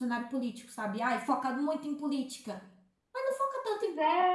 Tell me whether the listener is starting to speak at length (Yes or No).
No